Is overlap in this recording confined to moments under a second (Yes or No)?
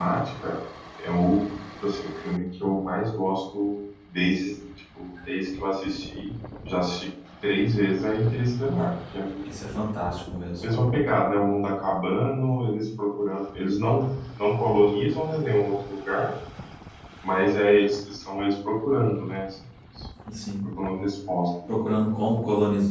Yes